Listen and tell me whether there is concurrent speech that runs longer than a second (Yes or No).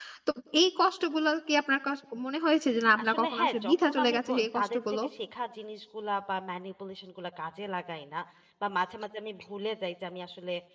Yes